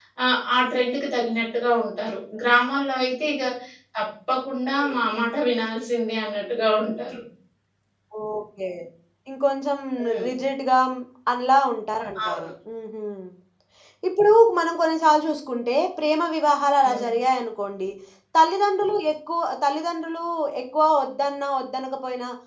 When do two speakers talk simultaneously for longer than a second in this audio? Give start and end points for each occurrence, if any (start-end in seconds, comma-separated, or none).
none